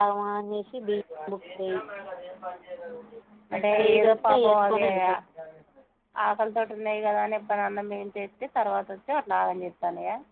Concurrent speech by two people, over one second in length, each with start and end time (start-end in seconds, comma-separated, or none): 3.7-5.0